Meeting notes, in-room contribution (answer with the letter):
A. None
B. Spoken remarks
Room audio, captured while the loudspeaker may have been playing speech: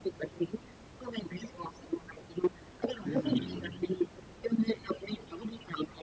B